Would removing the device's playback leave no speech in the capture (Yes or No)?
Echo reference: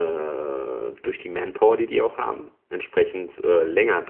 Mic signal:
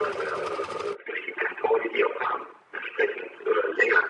Yes